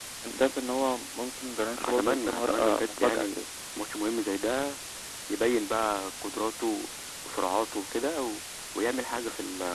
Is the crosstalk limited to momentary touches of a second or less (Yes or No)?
No